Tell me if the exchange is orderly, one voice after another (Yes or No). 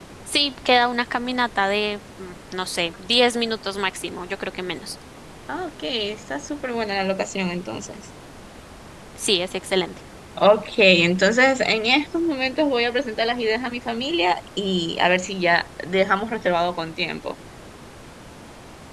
Yes